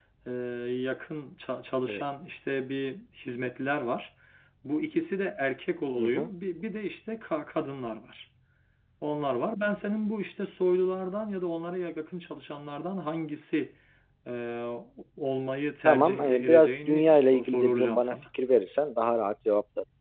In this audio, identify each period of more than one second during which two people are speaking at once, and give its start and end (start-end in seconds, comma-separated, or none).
15.8-18.1